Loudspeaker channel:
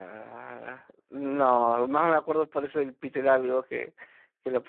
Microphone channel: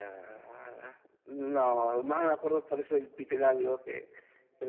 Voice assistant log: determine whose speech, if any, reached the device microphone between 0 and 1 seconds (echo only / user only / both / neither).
echo only